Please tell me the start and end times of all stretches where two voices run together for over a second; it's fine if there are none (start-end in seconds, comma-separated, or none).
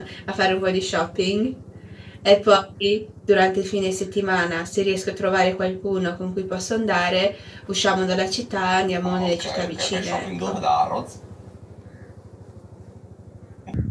9.0-10.6